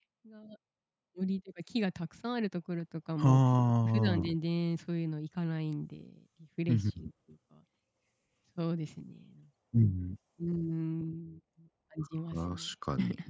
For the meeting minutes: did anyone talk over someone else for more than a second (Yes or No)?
No